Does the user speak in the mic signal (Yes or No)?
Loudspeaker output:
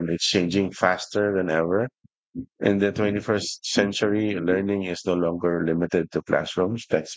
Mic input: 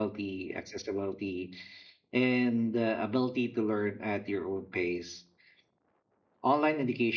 Yes